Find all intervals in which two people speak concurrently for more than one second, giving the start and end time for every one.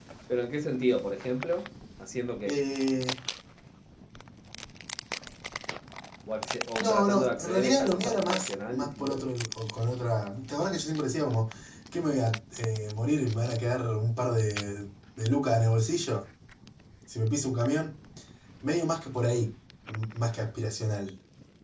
6.8-9.2

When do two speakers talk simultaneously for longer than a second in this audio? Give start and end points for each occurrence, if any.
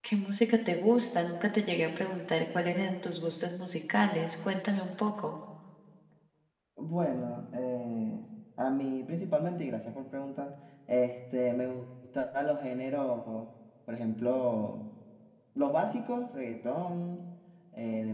none

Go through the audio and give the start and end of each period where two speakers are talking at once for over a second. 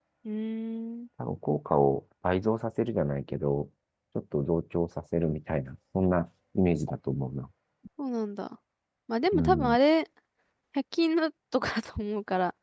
none

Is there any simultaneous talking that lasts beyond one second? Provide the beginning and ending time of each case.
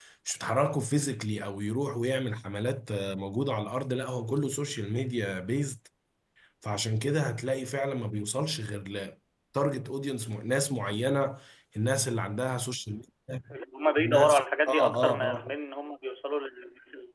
14.0-15.5

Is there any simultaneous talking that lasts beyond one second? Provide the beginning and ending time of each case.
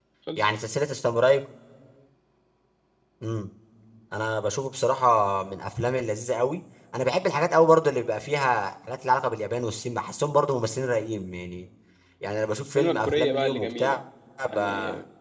12.8-14.0

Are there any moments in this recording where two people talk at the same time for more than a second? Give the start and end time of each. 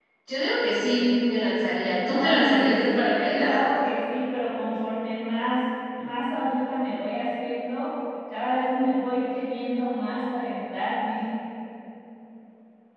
2.1-3.5

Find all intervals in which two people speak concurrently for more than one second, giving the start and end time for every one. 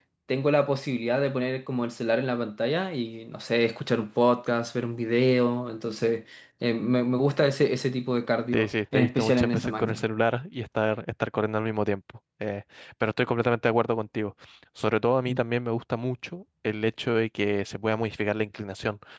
8.5-10.0

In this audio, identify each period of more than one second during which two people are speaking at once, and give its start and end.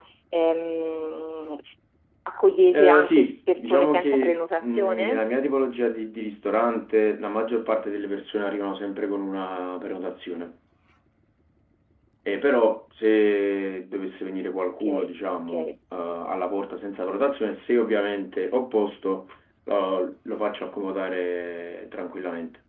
2.7-5.2

